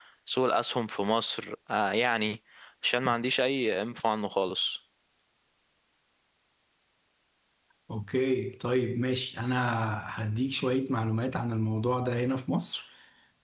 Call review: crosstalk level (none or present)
none